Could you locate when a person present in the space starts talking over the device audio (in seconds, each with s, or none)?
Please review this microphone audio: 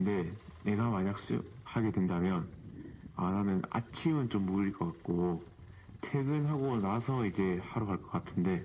none